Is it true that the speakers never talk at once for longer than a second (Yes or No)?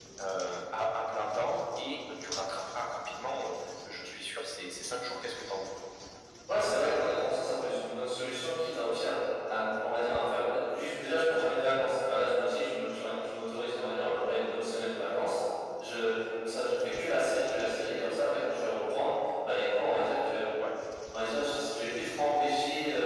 Yes